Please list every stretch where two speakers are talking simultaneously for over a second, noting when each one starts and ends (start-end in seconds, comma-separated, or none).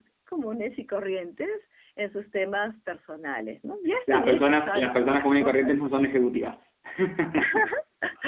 4.1-5.7